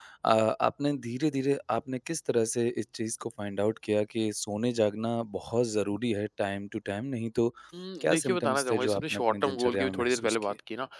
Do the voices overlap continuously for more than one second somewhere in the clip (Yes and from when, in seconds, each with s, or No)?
Yes, from 8.0 s